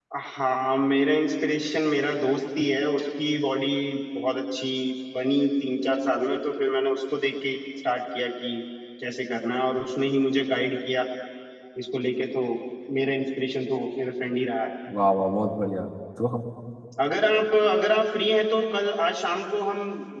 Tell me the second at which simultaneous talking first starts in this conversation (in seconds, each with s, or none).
none